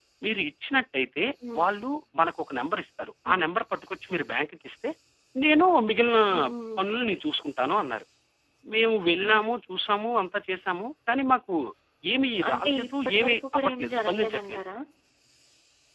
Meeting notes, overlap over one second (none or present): present